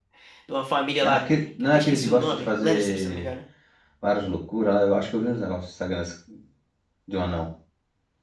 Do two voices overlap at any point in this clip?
Yes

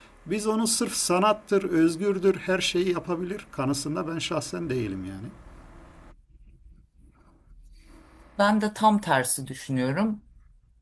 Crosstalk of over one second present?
No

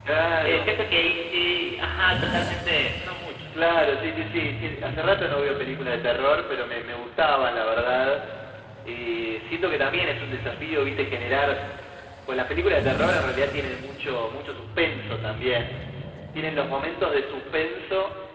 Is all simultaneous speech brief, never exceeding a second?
Yes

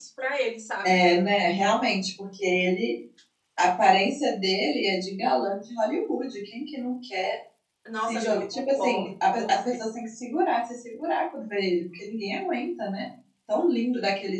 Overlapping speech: Yes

